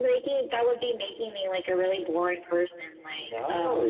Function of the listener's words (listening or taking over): taking over